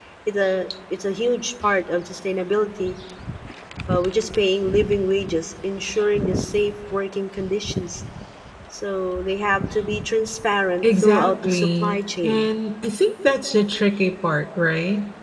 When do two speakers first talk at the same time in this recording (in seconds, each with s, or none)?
10.8 s